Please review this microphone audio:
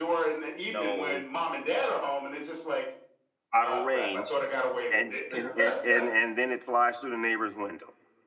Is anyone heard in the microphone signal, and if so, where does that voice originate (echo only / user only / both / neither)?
both